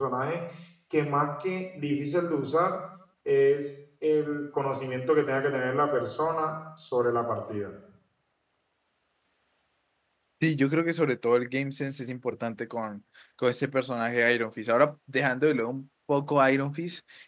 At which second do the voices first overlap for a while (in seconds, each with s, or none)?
none